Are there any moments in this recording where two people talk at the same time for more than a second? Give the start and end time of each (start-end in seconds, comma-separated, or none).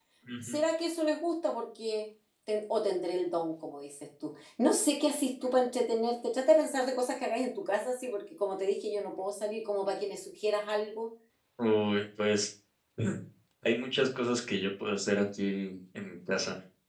none